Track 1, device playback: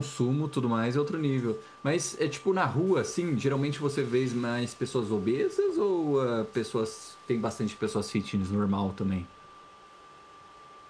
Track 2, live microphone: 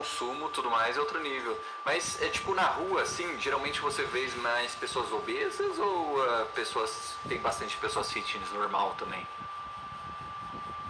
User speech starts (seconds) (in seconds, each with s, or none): none